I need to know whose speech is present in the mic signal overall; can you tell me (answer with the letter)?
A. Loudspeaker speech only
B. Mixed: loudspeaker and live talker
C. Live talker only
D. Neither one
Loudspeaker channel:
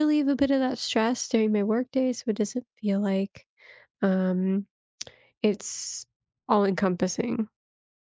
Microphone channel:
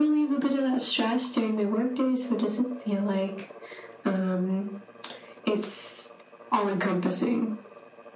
A